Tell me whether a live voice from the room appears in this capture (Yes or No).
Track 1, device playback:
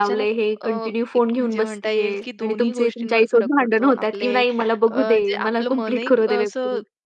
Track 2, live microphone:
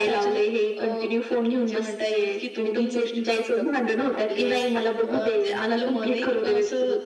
No